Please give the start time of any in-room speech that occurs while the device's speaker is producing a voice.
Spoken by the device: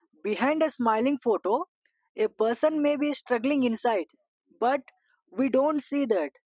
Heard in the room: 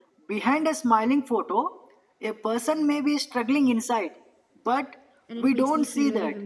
5.3 s

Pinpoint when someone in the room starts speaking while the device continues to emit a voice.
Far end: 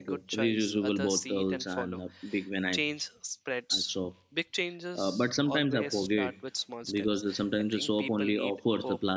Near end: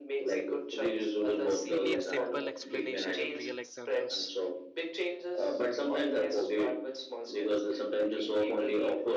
1.7 s

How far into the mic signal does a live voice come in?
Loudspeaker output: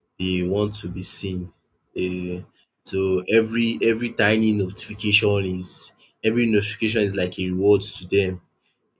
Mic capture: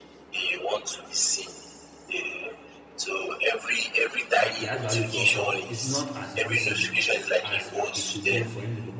4.4 s

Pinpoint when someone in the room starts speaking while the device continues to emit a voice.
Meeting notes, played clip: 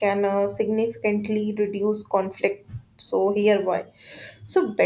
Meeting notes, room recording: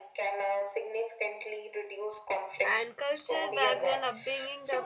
2.6 s

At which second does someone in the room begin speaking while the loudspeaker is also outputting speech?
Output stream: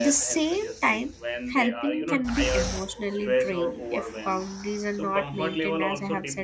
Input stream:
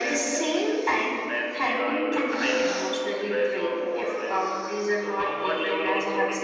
none

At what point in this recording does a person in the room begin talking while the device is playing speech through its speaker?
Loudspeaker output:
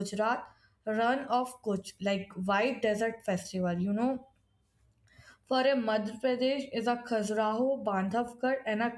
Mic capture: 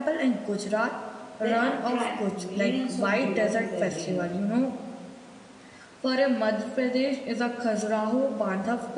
1.4 s

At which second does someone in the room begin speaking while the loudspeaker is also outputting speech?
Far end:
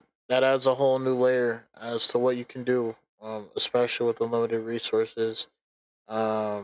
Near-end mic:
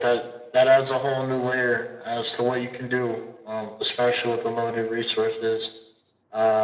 none

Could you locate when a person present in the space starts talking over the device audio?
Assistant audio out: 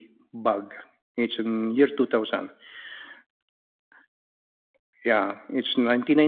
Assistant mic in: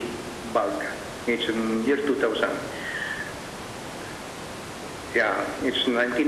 none

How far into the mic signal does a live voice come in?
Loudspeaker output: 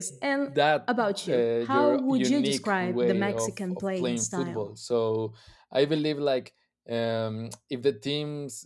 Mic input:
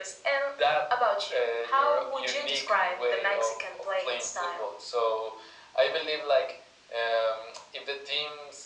none

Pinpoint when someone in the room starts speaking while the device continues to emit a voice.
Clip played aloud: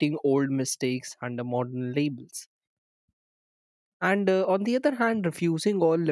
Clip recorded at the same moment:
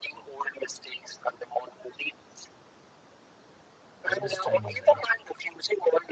4.0 s

